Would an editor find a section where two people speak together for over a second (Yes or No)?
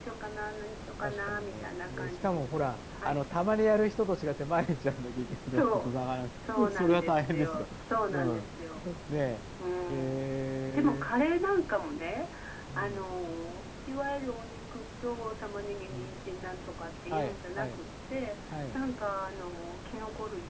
Yes